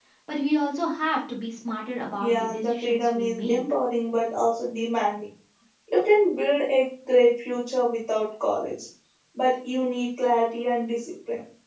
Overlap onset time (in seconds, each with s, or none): 2.2 s